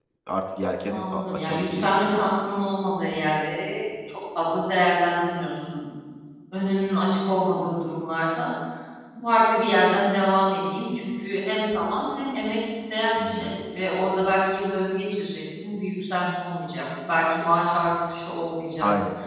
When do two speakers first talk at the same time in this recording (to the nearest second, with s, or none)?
1 s